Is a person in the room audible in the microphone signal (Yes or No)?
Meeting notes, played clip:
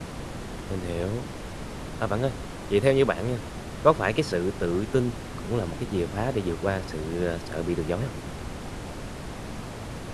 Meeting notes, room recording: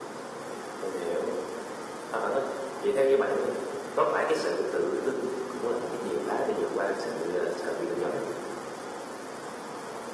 No